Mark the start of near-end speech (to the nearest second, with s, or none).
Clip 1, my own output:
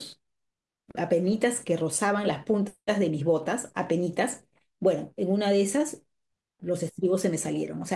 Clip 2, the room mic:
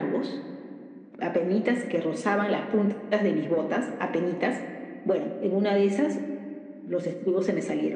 none